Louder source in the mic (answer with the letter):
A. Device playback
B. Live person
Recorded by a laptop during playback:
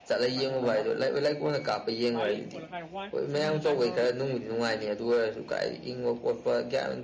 A